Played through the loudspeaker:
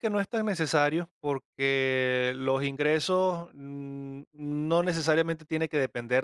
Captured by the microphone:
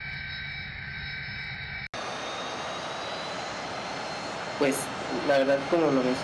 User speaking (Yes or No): Yes